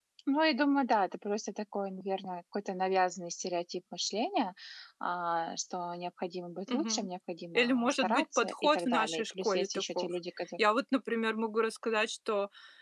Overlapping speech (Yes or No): Yes